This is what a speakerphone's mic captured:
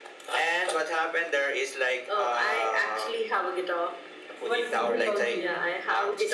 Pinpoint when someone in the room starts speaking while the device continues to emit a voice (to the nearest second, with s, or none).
4 s